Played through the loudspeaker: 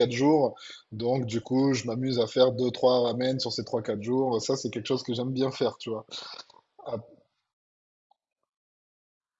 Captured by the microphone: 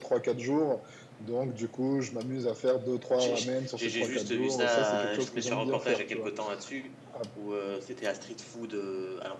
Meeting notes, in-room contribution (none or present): present